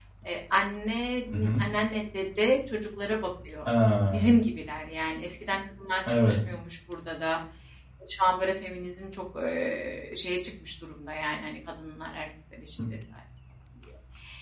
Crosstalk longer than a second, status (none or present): none